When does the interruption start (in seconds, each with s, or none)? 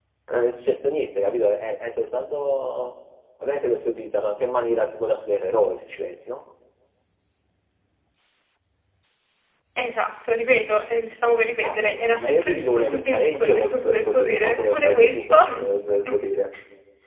11.6 s